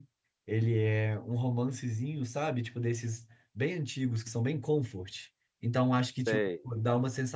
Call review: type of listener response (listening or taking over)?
listening